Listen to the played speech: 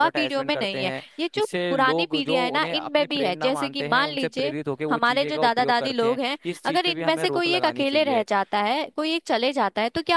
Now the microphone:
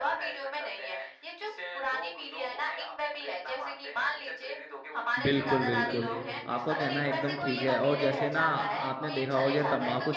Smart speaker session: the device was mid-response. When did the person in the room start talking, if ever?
5 s

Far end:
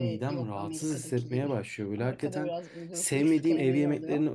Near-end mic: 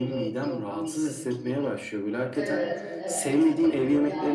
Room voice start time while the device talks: 2 s

